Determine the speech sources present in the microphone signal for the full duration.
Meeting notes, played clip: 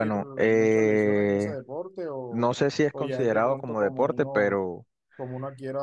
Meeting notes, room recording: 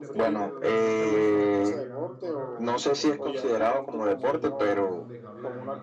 both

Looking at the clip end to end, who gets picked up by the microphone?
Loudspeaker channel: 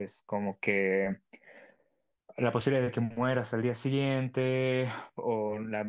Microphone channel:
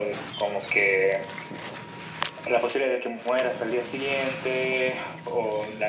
echo only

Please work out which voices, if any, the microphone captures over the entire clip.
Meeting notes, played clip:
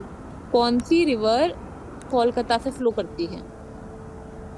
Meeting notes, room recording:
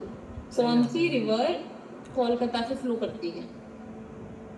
both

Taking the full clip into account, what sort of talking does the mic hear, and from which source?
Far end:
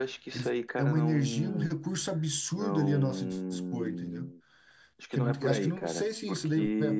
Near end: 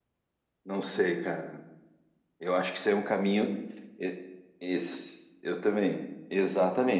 user only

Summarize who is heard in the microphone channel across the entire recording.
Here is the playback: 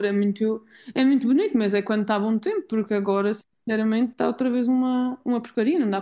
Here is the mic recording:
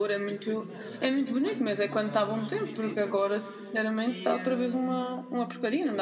both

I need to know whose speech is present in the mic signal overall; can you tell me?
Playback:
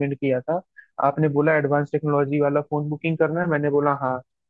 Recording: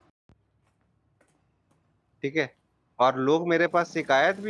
user only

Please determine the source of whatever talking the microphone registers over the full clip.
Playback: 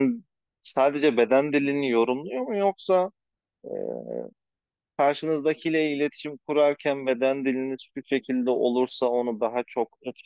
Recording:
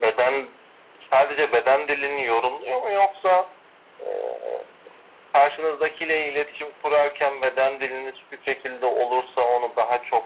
echo only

